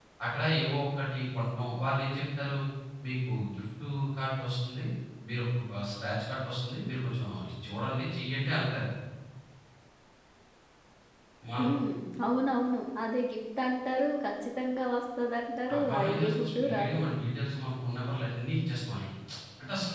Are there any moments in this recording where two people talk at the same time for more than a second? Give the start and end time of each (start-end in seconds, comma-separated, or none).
15.7-17.0